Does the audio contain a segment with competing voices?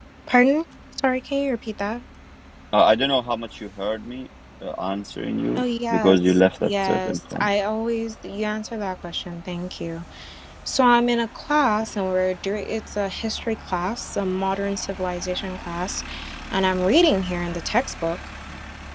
Yes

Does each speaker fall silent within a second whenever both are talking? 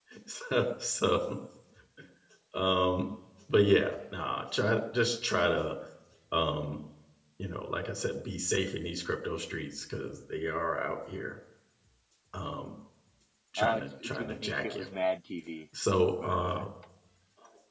No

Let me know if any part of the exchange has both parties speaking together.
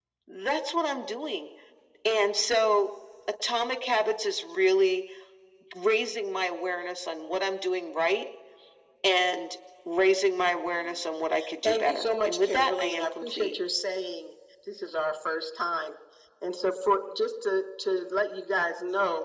Yes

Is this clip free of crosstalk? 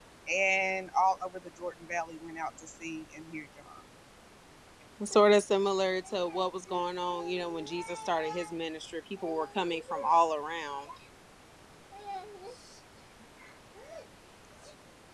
Yes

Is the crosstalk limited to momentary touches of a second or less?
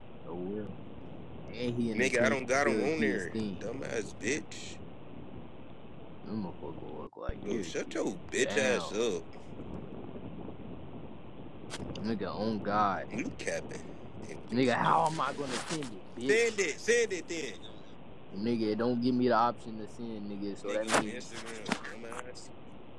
No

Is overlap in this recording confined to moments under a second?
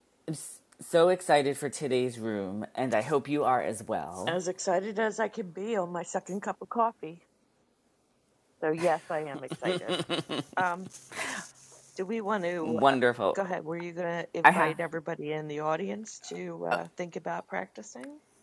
Yes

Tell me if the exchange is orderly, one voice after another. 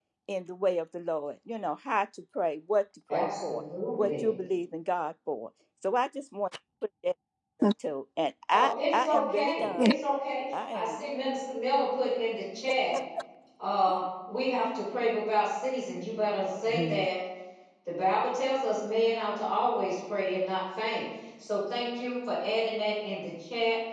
No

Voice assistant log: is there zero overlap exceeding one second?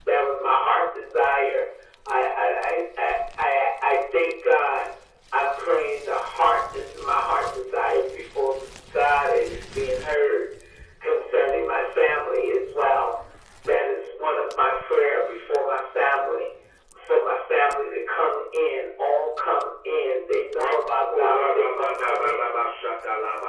No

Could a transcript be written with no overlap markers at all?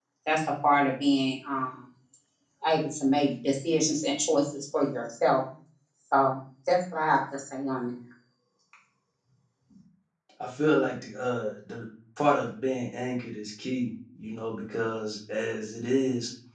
Yes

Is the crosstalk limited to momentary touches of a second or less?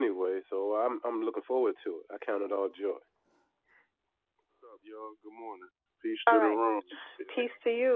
Yes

